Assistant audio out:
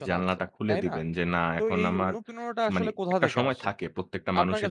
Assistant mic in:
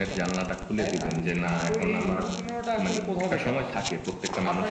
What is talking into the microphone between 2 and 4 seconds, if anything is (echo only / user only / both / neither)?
echo only